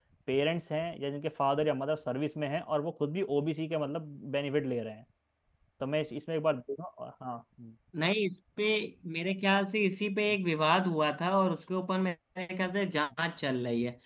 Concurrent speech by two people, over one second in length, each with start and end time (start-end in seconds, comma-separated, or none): none